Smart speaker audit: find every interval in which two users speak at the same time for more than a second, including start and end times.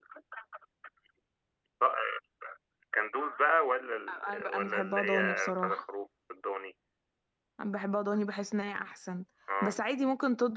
4.3-5.8

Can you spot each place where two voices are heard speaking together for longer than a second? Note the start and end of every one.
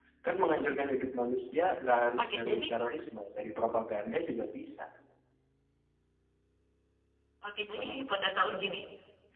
none

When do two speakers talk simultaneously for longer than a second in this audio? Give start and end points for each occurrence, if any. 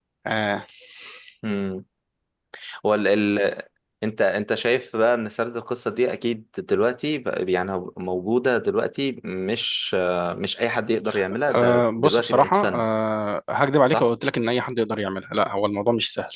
11.5-12.8

